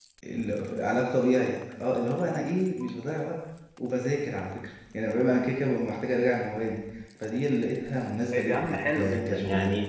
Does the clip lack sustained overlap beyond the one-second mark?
No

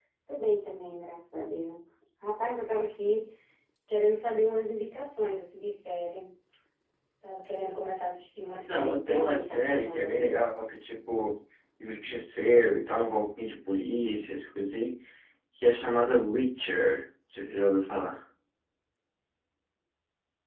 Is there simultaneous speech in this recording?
Yes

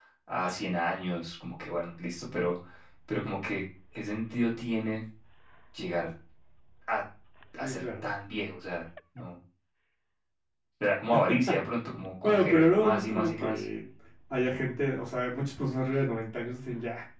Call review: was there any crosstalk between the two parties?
Yes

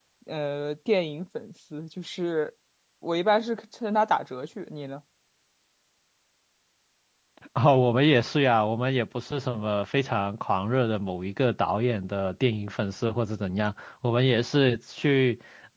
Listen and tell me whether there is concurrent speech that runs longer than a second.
No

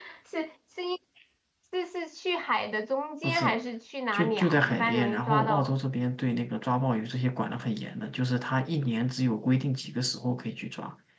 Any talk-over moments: Yes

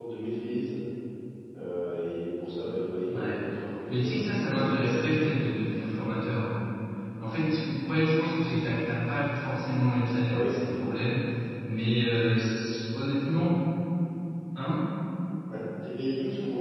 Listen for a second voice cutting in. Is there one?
Yes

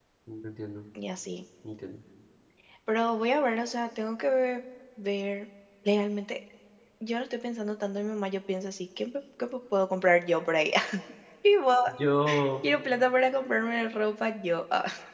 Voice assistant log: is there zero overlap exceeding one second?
Yes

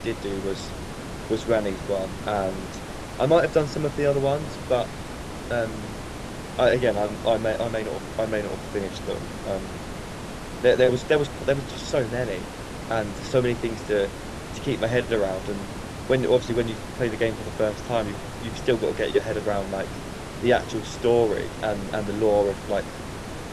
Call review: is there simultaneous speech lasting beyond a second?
No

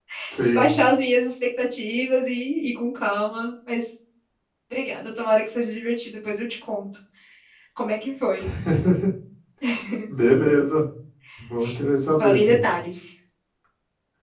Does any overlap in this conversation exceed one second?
No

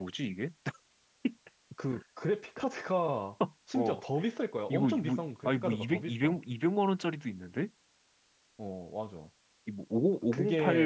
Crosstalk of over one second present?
Yes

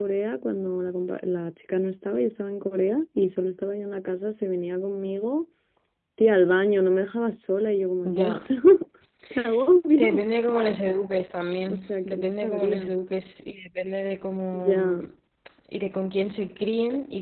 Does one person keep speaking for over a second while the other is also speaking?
Yes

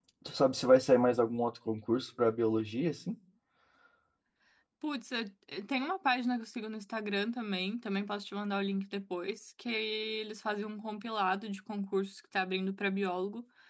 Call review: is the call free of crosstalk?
Yes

